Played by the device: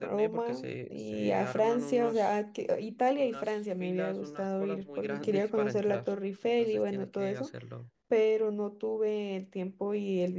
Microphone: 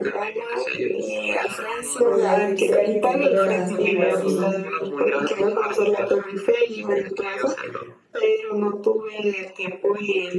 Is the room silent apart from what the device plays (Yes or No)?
No